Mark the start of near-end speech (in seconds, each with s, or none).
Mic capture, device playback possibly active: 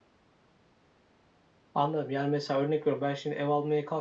1.7 s